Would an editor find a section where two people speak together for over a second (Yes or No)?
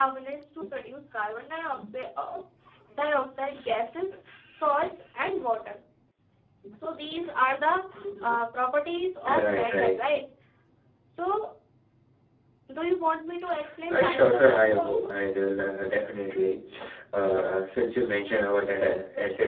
Yes